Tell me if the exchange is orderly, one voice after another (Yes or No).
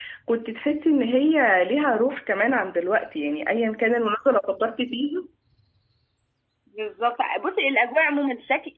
Yes